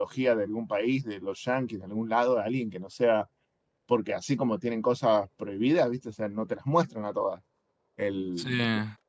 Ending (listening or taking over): listening